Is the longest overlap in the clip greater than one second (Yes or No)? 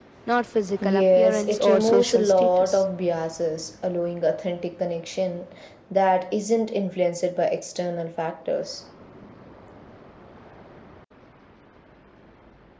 Yes